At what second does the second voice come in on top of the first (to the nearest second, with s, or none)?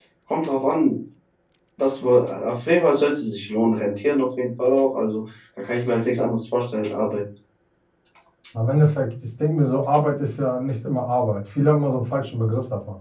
none